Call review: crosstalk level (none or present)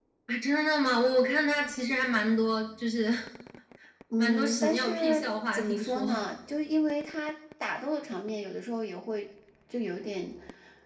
present